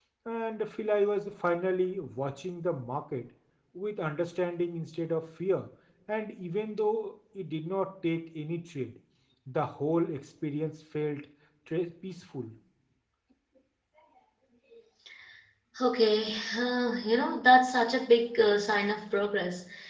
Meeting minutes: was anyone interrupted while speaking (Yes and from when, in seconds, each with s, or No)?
No